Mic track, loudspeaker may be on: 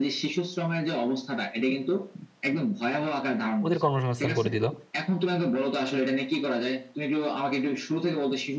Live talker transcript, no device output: ওদের কর্মসংস্থান করে দিল

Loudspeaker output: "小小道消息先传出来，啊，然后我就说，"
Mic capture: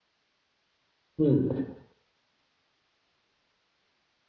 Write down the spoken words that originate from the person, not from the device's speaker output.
嗯

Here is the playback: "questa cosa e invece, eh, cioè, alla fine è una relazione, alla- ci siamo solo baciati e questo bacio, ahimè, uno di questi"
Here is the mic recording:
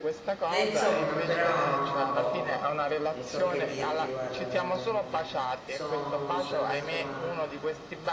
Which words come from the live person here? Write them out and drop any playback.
E insomma, però, boh, non so che dirti, guarda, veramente. Sono rimasto male.

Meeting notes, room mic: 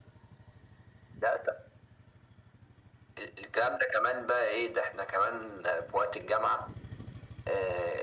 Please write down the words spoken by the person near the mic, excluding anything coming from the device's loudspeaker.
none

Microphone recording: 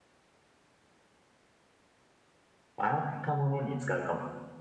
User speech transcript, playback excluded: 洗ったものに使うかも。

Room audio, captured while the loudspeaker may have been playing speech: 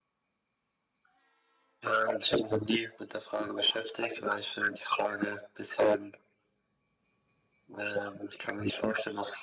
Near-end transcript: none

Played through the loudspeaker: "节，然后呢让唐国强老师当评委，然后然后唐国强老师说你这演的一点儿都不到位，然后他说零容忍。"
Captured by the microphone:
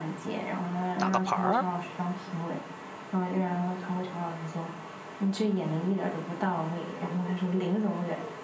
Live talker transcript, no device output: 打个牌儿，

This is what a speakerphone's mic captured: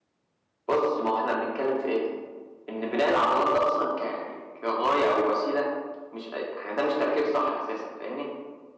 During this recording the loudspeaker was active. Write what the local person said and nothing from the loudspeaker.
none

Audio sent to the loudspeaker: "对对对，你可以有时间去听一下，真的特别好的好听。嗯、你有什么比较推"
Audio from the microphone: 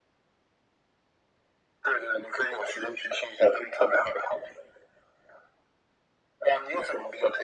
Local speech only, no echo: none

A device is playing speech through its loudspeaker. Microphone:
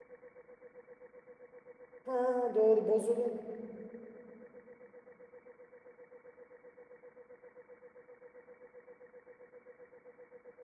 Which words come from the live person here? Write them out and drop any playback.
Ha doğru bozulun.

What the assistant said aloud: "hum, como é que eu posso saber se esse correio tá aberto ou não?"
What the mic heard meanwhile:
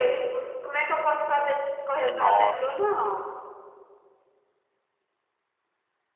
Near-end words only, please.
Nossa.

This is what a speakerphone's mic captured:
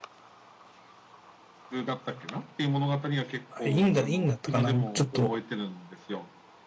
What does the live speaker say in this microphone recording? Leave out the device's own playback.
あ院だ、院だったかな、ちょっと

